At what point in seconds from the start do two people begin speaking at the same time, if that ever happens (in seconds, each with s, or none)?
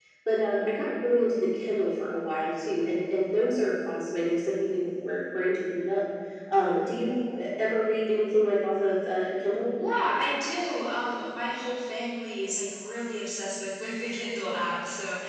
none